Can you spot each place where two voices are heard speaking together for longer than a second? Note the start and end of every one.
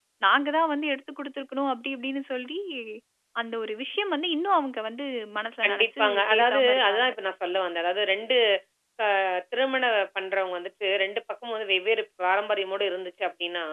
5.6-7.1

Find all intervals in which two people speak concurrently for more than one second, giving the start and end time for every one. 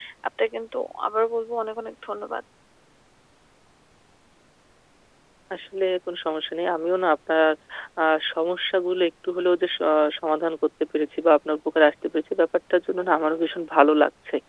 none

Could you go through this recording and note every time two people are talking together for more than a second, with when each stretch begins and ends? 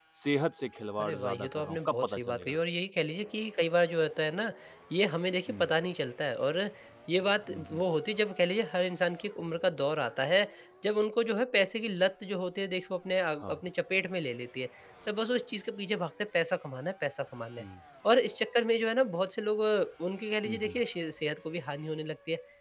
1.0-2.6

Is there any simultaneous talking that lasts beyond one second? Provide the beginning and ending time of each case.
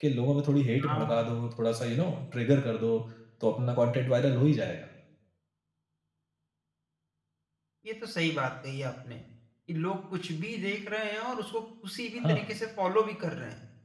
none

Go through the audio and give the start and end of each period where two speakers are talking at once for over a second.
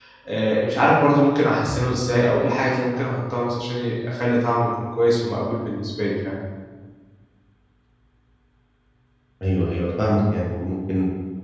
none

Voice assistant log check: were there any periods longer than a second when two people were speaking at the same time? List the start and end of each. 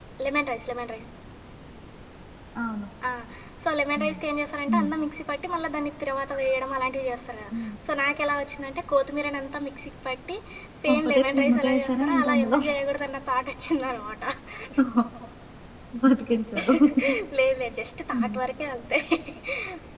10.9-12.6

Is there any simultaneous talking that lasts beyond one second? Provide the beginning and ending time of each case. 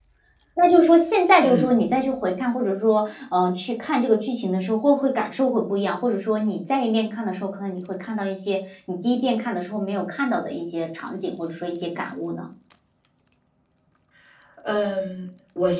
none

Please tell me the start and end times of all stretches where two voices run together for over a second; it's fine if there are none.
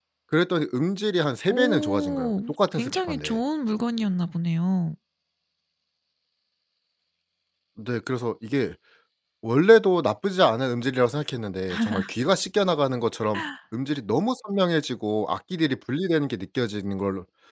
1.5-3.4

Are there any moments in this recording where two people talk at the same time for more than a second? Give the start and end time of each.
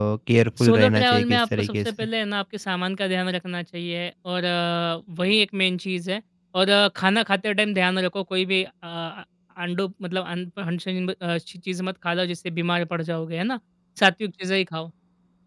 0.6-1.9

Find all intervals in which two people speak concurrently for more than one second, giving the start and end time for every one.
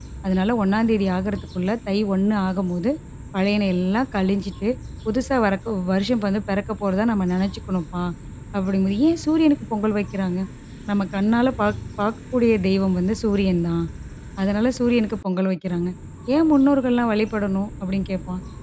none

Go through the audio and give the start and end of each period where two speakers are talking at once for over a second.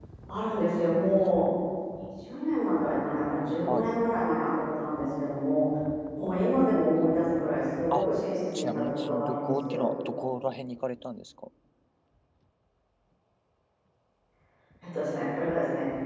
8.6-9.9

